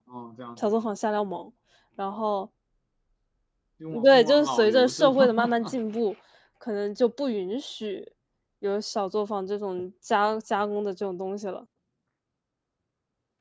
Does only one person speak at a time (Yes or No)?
No